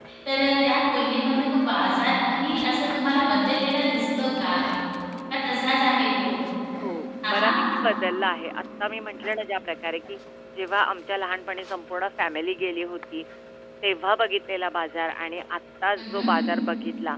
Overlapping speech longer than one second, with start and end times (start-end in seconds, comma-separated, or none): none